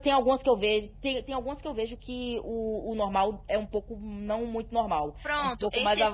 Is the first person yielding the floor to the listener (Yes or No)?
Yes